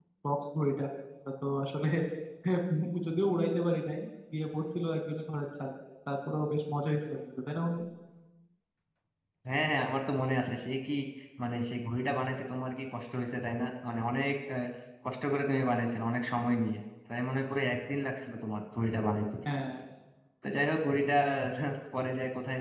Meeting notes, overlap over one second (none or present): none